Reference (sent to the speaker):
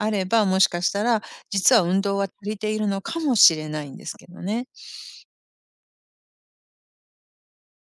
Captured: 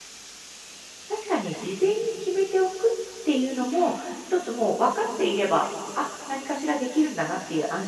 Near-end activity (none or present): present